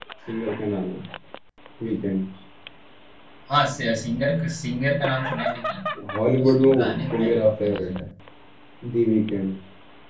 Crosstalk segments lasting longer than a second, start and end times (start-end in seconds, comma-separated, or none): 6.4-8.0